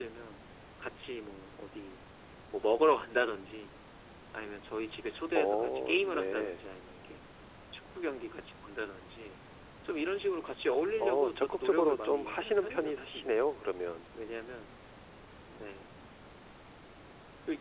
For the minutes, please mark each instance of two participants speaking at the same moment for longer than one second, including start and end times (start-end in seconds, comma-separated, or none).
5.3-6.6, 11.0-13.5